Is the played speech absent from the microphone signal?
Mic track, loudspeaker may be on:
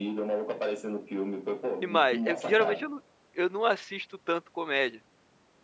No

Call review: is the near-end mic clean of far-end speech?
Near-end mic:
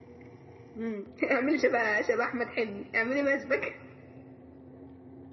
Yes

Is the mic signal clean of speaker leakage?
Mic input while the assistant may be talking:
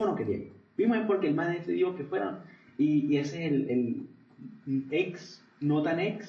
Yes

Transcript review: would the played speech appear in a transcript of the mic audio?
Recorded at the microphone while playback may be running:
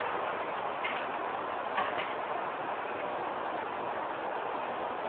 No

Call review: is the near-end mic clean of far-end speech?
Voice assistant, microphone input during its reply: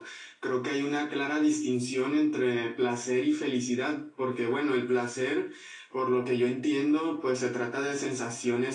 Yes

